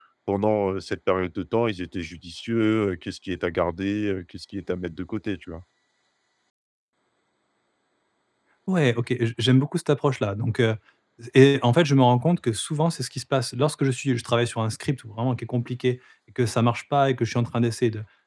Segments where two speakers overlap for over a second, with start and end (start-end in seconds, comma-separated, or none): none